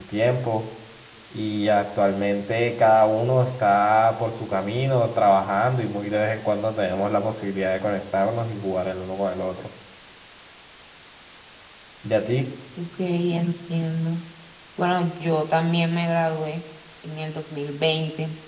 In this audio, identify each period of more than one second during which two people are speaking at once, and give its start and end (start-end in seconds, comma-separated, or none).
none